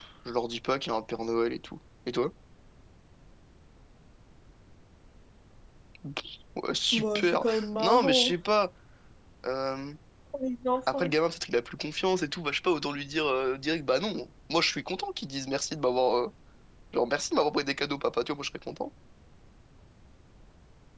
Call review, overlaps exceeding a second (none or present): present